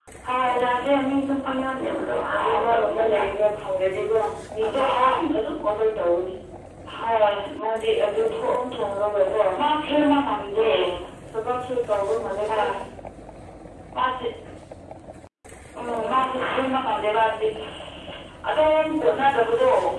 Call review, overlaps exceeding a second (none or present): present